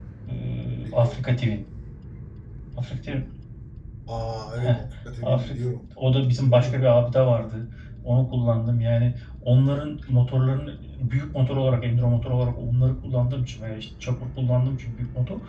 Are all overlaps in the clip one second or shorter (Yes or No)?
Yes